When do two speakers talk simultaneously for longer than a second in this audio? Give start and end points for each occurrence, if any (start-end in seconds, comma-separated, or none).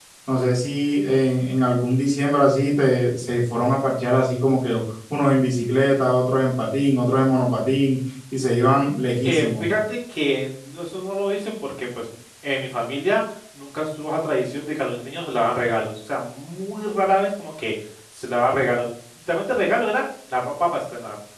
none